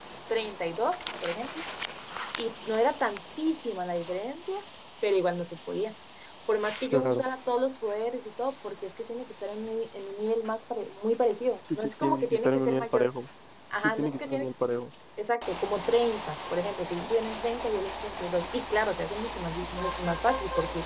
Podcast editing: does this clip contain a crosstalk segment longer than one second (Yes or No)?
Yes